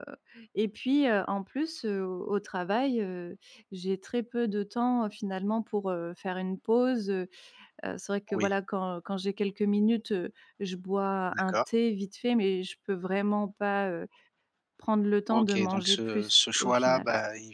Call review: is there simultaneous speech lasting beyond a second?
Yes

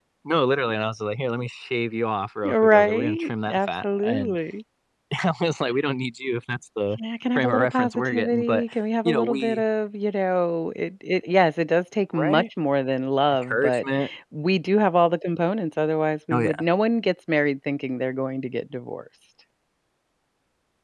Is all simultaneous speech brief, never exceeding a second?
No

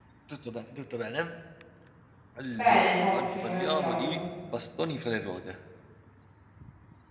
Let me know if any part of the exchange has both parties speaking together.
Yes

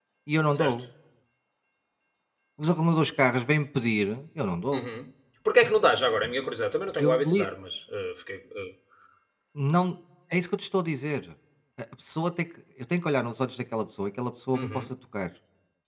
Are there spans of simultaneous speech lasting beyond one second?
No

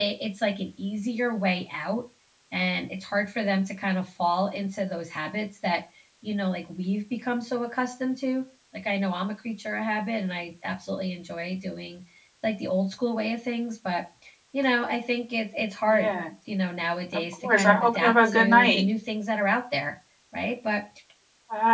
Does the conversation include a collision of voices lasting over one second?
Yes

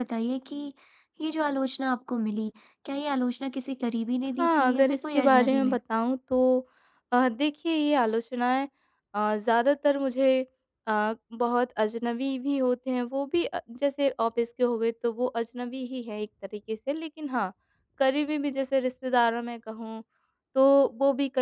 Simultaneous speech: Yes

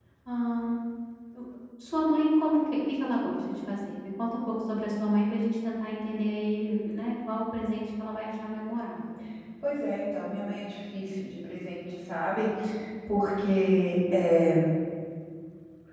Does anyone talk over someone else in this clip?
No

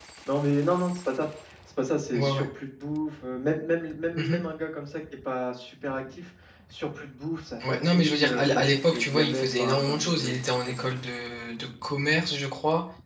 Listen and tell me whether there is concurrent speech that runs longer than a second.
Yes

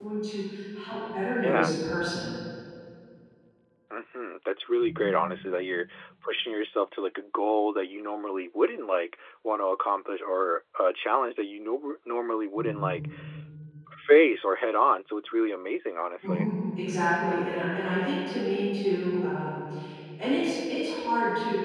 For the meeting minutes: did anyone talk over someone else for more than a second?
No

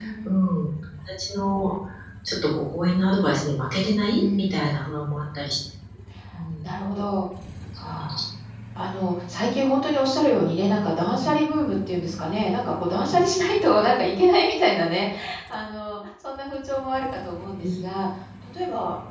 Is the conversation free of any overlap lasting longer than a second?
Yes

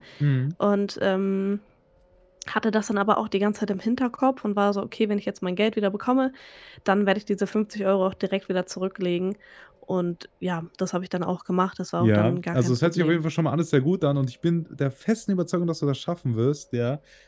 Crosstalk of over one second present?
Yes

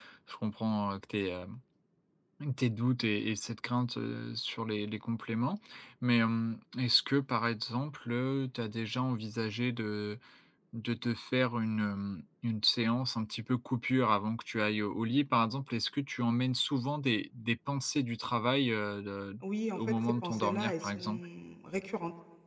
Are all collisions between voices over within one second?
No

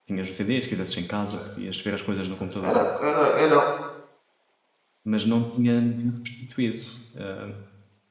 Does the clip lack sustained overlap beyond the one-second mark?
Yes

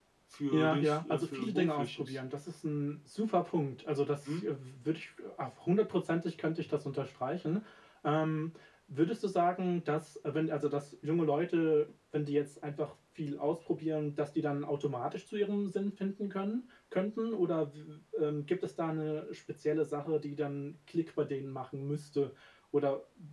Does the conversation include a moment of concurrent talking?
Yes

